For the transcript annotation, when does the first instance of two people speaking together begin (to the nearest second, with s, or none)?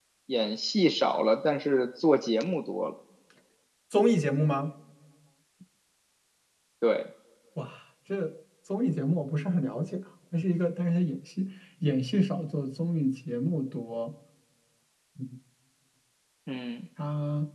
none